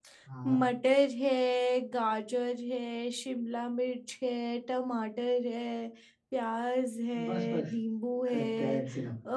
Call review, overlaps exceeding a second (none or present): none